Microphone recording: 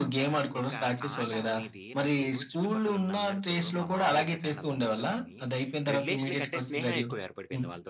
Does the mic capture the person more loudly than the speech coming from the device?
No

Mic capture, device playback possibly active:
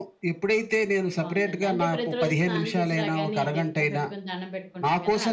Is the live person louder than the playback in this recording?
No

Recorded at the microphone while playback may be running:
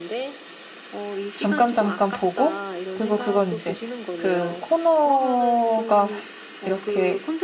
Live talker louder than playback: Yes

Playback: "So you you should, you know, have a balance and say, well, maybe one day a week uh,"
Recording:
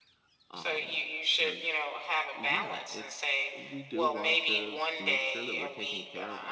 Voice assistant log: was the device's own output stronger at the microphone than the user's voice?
Yes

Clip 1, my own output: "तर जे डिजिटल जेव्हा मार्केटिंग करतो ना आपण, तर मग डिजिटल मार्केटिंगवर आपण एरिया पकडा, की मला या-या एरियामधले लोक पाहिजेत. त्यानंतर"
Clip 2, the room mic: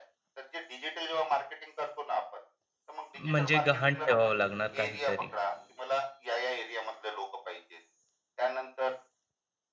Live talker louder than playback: Yes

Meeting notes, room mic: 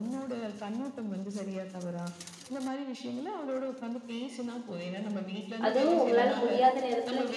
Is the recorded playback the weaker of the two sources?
Yes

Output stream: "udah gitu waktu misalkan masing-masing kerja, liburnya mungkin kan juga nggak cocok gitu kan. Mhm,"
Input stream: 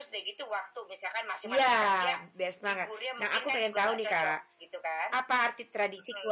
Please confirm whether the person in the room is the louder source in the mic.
Yes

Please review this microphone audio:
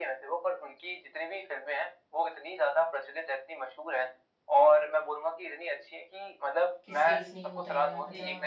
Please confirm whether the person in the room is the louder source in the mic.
No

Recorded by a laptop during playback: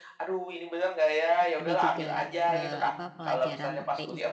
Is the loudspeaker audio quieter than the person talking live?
No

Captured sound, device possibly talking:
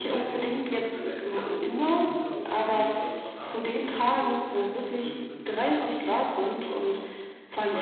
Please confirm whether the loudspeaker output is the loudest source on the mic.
Yes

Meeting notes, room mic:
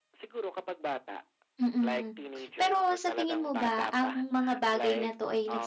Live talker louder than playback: Yes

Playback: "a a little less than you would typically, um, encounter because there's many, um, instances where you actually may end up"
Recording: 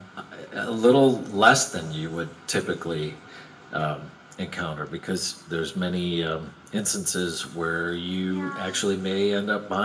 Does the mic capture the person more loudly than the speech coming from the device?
No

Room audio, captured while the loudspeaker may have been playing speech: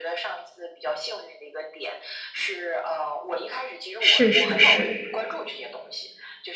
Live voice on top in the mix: Yes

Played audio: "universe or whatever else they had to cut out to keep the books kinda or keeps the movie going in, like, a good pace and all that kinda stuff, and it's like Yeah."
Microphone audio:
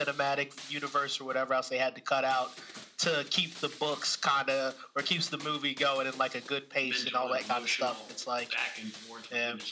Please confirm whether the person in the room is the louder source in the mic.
No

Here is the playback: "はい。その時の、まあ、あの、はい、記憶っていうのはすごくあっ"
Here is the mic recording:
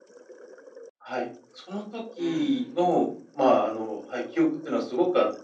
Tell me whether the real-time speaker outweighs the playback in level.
No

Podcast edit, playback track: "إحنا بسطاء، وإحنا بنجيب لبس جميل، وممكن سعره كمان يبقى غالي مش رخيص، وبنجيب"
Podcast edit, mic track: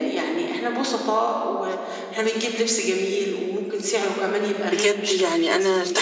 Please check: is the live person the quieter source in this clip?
No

